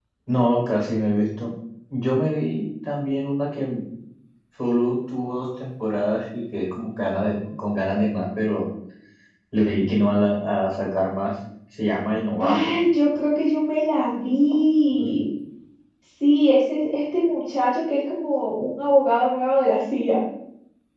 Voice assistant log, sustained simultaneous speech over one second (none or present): none